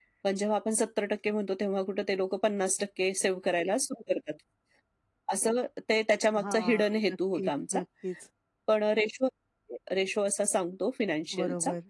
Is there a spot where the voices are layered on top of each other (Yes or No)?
Yes